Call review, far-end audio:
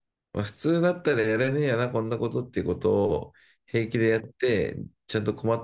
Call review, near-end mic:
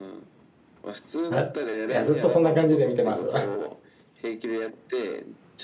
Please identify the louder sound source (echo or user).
user